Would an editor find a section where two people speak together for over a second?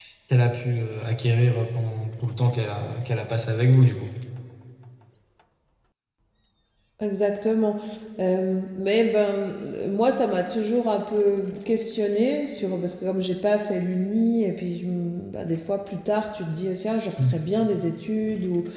No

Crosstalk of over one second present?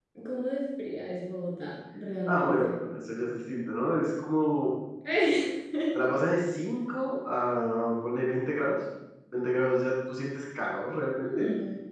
No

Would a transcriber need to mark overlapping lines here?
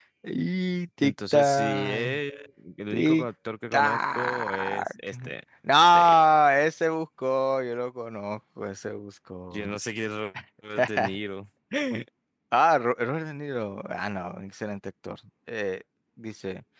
Yes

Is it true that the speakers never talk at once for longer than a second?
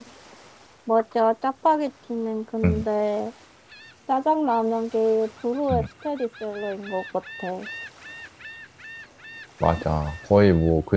Yes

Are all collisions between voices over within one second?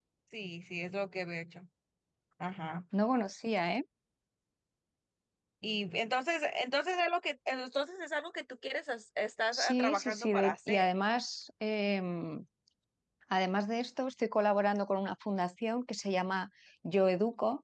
No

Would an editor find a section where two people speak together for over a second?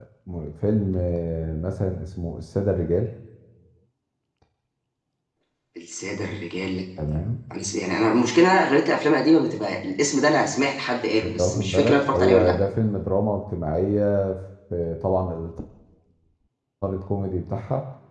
Yes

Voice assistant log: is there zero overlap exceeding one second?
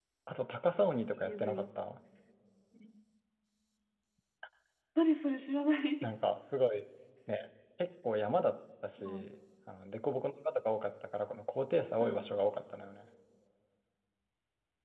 Yes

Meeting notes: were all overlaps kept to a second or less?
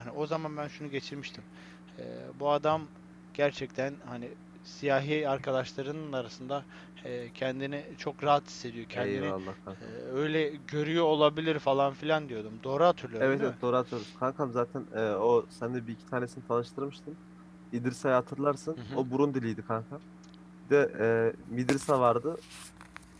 Yes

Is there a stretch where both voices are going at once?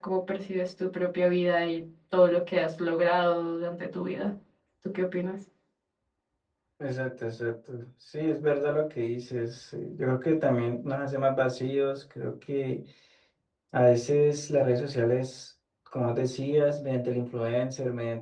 No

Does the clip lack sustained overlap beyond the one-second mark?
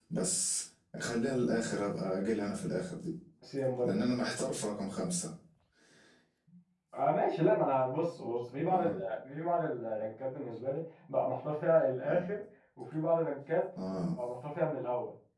Yes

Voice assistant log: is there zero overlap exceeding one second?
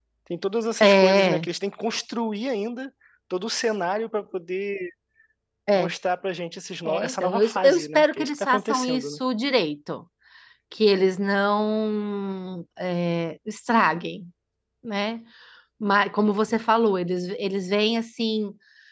No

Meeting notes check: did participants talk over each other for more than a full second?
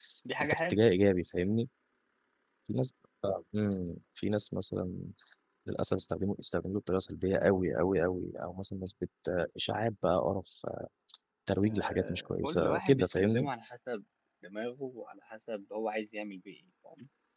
Yes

